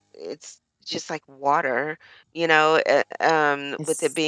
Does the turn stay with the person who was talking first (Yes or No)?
Yes